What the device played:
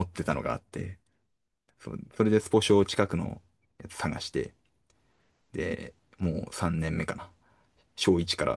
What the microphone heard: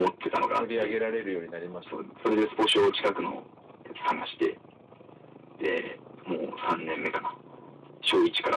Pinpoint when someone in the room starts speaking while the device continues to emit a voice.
0.5 s

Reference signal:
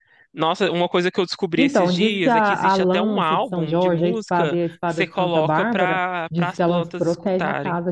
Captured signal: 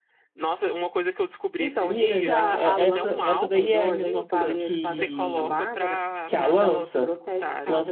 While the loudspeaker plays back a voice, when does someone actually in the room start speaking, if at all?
1.9 s

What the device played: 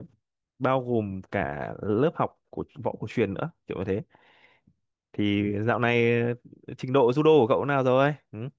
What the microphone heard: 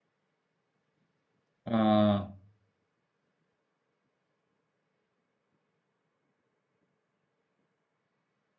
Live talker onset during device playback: 1.6 s

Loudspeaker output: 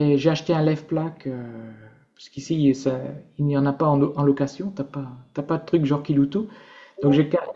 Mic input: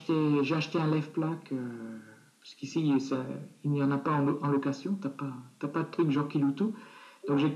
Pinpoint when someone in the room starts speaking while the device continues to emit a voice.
none

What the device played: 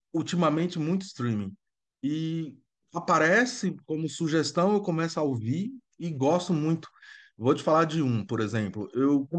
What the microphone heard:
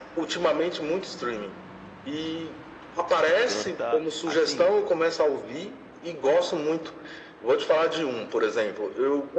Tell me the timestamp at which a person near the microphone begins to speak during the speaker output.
3.2 s

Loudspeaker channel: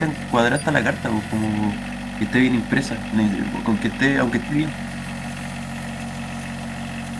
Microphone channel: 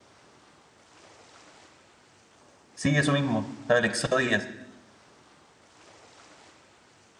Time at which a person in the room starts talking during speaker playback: 2.7 s

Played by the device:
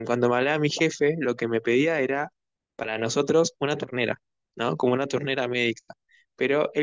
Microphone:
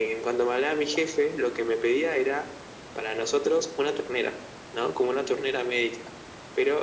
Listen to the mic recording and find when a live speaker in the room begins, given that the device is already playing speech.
none

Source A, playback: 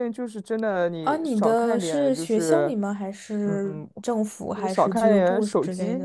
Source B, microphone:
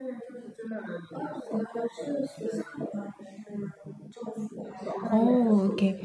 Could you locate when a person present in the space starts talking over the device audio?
5.1 s

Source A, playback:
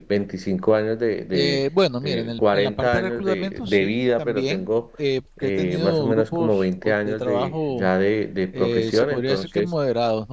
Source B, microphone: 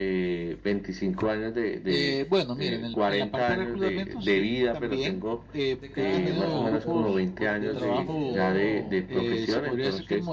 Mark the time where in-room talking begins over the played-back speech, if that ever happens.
5.8 s

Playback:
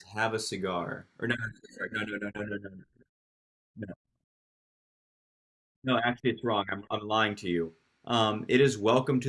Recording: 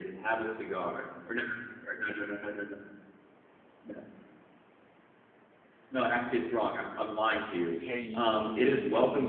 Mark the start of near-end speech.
7.8 s

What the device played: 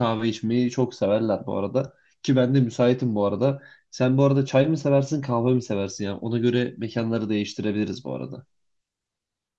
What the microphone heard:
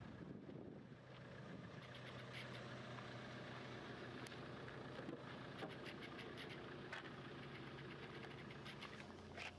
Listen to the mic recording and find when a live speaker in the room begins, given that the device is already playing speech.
none

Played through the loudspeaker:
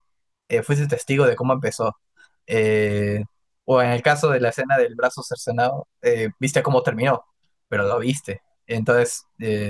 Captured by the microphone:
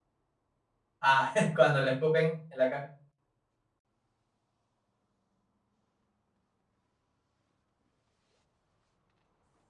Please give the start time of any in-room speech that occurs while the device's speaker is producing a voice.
1.0 s

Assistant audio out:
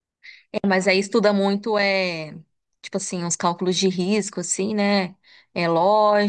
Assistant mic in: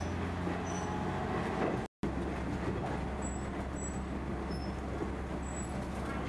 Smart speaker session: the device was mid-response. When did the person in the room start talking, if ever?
none

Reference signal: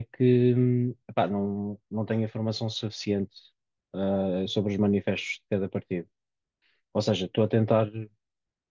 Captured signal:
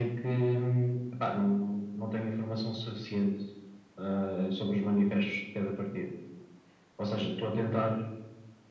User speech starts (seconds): none

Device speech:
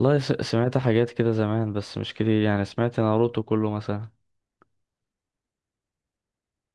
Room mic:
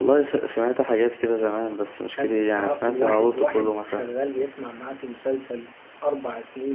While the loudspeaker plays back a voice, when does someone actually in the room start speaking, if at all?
2.1 s

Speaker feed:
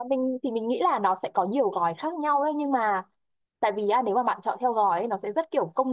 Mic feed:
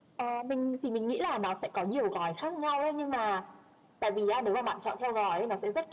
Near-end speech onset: none

